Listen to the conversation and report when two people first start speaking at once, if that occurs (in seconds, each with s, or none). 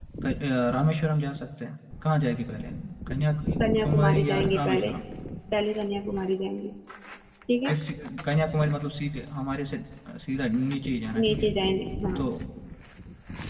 3.6 s